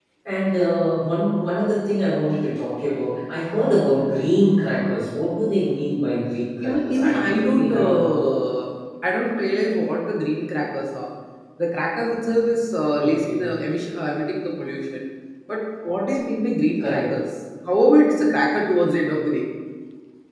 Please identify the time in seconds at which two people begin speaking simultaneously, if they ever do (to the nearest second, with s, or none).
7 s